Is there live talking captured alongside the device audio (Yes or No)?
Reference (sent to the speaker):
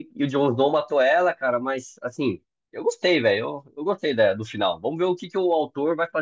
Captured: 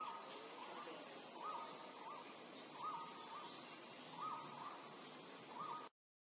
No